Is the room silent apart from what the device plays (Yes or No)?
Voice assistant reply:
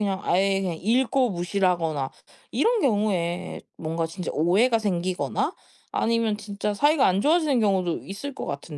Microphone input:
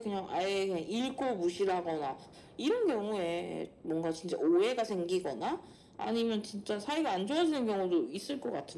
Yes